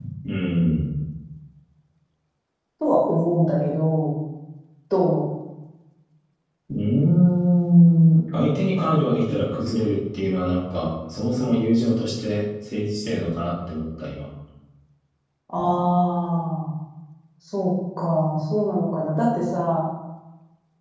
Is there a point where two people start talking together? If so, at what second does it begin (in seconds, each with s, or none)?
none